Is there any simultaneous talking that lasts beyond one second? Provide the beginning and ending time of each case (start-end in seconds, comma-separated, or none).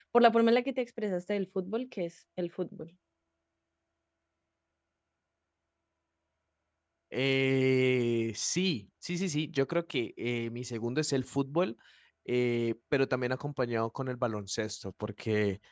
none